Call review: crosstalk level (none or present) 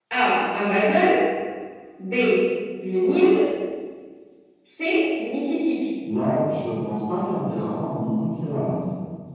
none